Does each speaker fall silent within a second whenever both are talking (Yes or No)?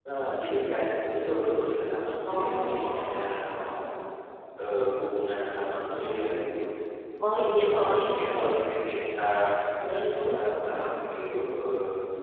No